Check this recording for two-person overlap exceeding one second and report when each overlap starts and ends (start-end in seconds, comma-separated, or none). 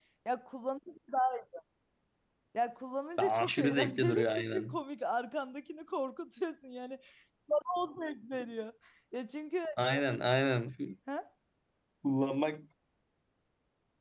3.2-4.8